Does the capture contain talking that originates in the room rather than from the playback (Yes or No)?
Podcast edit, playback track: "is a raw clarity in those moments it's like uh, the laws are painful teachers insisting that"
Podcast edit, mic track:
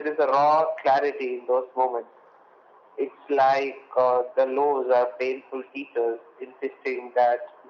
No